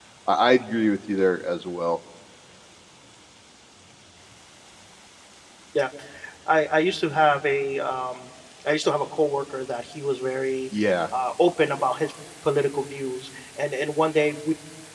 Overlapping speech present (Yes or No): No